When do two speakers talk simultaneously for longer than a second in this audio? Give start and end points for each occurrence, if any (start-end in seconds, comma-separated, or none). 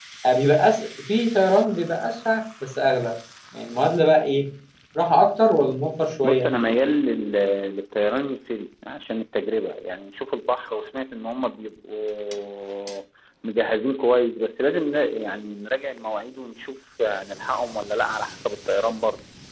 none